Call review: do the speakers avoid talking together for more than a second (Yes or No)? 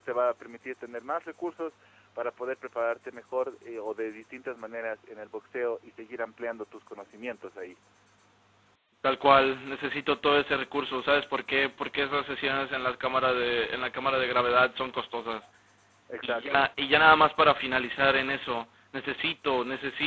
Yes